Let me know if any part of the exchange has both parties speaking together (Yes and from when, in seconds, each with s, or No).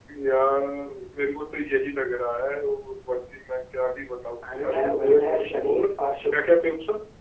Yes, from 4.4 s